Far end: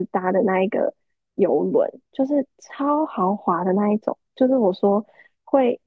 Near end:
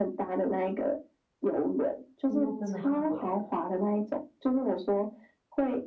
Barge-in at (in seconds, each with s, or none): 2.3 s